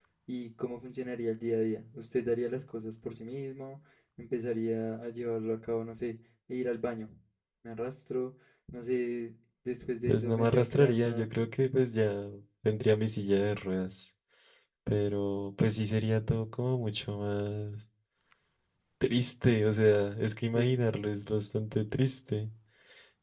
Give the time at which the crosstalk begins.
10.0 s

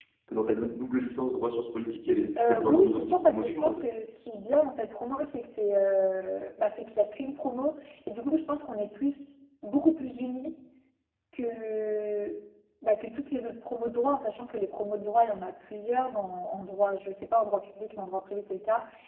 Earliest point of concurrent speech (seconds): 2.4 s

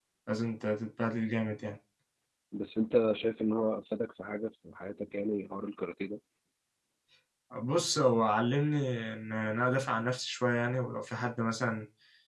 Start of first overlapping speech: none

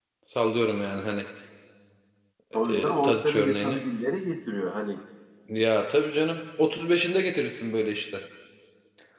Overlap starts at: 2.5 s

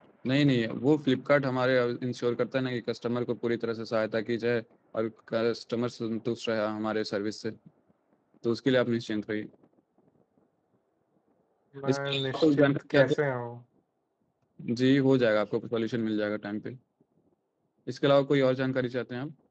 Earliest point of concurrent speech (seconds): 11.9 s

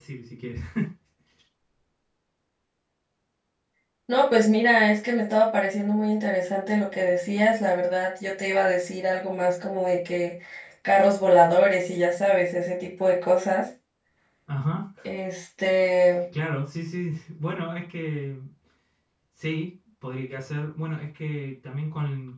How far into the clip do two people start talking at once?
none

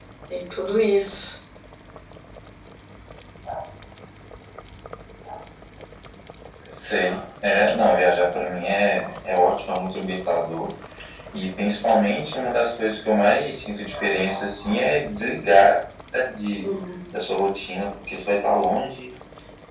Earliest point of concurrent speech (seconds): none

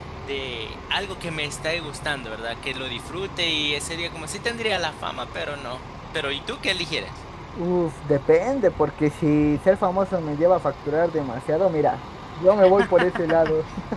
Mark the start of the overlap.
none

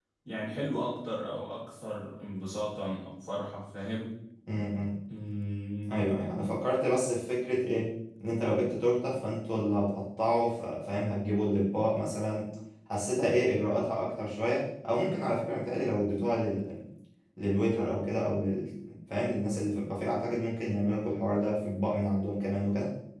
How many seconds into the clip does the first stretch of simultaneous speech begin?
none

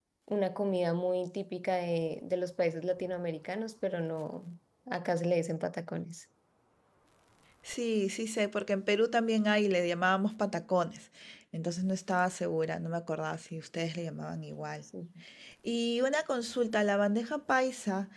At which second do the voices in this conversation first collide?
none

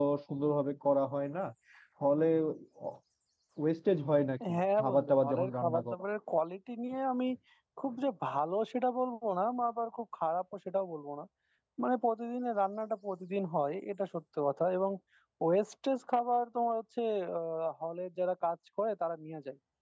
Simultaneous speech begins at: 4.4 s

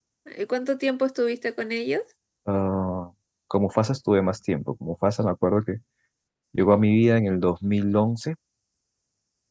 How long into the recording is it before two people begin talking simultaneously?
none

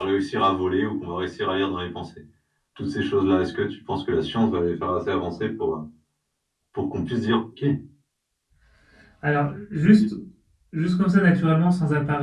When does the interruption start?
none

